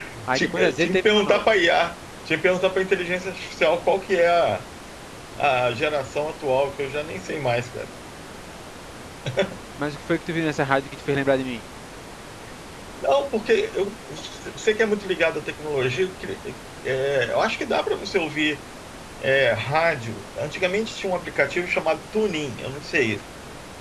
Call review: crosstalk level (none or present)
present